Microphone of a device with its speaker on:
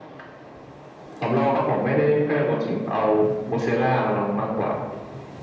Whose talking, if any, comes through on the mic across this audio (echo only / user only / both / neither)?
echo only